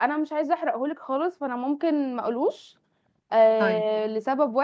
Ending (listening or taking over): listening